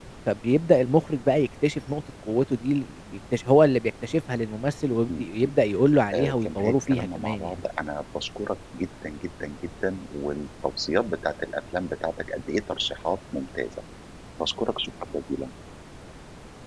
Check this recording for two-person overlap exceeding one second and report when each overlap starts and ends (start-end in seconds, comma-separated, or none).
6.1-7.5